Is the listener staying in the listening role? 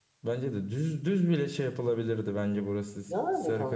Yes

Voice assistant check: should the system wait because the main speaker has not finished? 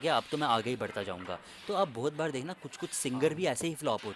Yes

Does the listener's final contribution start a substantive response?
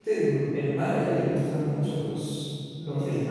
No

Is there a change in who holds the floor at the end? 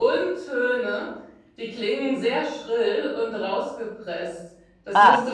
No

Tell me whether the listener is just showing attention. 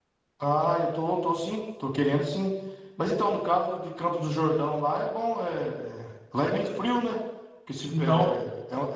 Yes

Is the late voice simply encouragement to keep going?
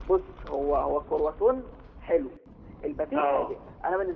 Yes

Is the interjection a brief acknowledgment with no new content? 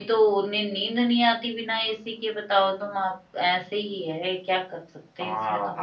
No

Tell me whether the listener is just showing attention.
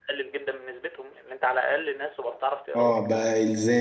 No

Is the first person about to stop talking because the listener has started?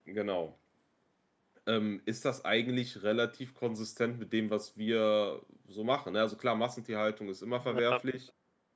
No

